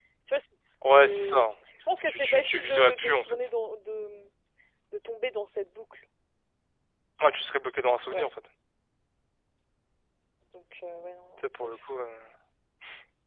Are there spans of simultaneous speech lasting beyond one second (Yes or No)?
Yes